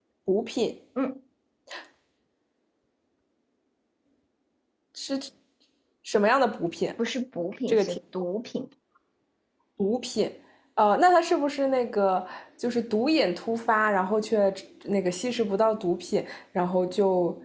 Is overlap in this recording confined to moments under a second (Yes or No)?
Yes